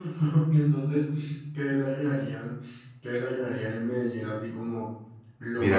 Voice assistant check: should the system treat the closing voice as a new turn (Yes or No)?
Yes